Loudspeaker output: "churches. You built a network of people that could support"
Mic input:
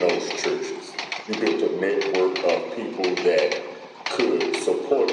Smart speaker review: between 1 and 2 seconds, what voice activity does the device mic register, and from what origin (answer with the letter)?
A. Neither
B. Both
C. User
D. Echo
D